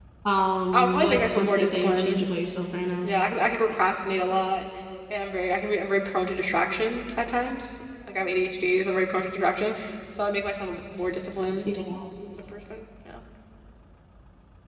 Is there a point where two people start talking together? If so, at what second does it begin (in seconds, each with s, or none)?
0.7 s